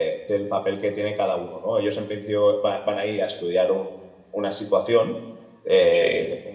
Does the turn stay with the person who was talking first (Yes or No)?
Yes